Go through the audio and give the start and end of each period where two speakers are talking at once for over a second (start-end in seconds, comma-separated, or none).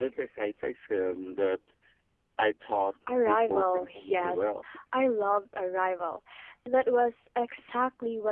3.2-4.5